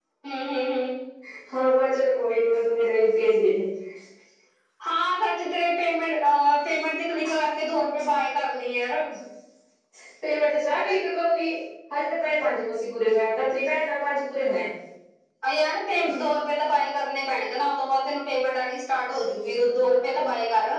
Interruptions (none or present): none